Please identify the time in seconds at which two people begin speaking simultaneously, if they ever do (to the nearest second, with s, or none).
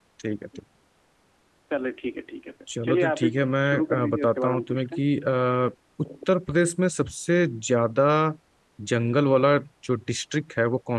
3 s